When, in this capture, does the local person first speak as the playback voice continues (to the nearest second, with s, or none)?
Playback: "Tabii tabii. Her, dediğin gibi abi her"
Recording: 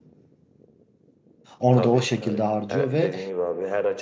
2 s